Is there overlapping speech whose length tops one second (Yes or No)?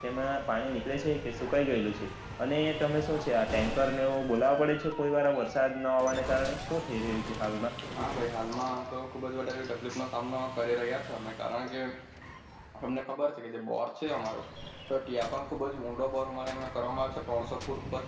No